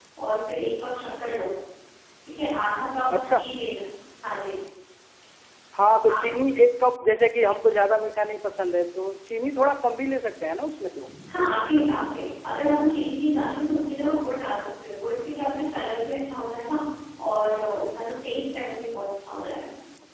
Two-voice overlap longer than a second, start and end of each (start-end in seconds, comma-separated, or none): none